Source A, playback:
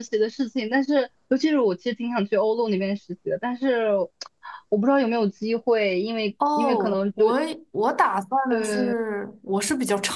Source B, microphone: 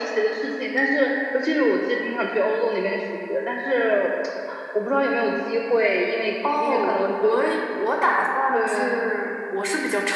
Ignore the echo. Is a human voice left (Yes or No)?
No